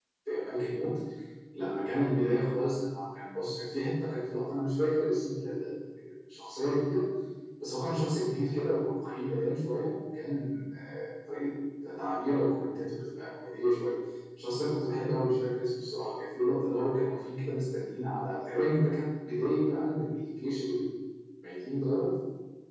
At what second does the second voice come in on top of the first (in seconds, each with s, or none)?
none